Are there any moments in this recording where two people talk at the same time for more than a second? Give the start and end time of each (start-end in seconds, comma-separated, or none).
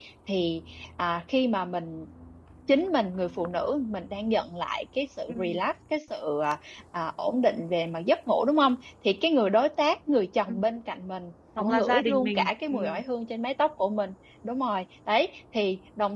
11.6-13.0